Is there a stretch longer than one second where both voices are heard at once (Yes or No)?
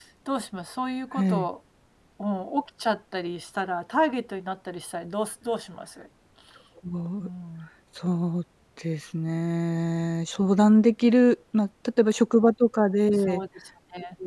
No